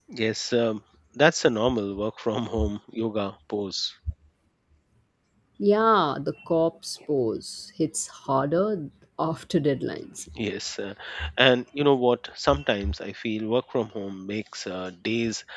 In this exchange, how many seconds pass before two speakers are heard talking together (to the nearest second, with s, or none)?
none